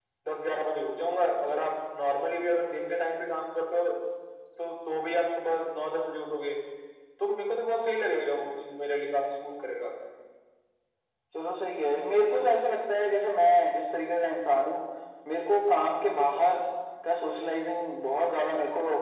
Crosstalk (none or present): none